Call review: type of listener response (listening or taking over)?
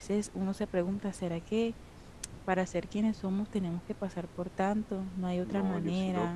taking over